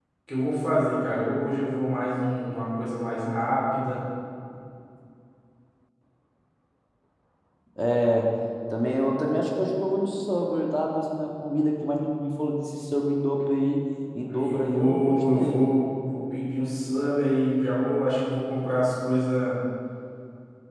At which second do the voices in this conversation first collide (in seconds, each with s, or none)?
14.3 s